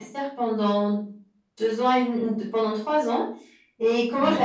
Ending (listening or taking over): listening